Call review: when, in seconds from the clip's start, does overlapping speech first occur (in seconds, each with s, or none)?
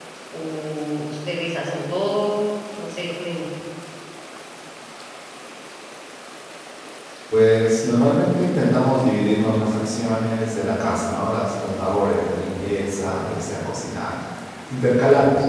none